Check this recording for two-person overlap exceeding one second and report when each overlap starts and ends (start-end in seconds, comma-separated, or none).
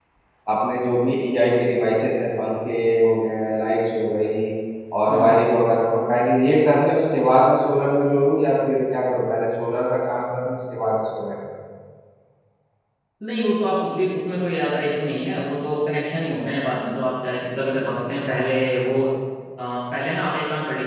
none